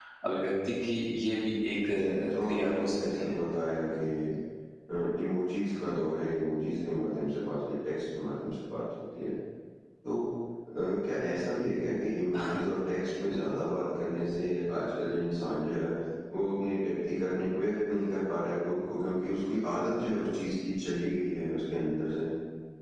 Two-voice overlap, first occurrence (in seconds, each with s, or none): 2.0 s